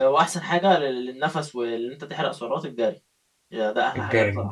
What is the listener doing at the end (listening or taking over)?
listening